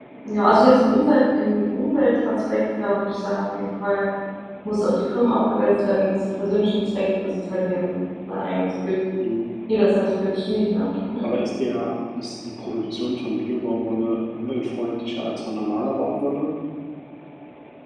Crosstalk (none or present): none